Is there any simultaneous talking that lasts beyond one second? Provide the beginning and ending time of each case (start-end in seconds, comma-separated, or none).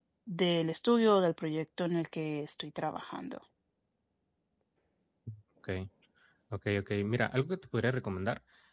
none